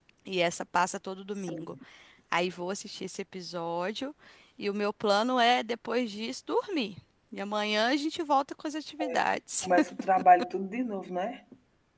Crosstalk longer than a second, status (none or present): none